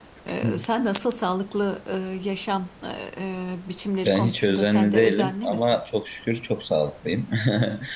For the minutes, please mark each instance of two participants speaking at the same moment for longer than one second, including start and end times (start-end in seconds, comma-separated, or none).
4.0-5.8